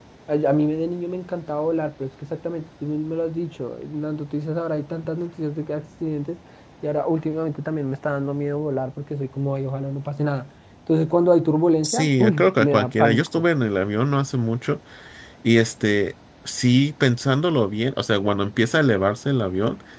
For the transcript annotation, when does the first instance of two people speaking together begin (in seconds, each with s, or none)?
11.8 s